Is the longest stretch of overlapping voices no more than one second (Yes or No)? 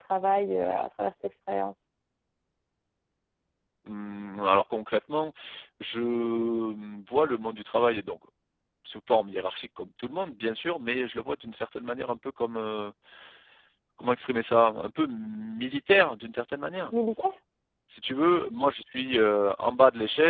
Yes